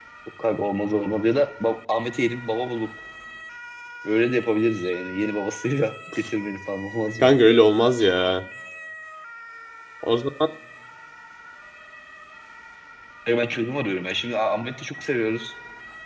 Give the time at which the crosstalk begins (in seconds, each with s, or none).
none